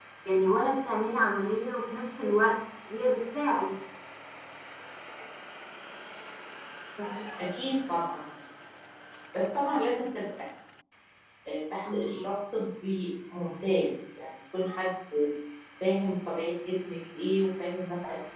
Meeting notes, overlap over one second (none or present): none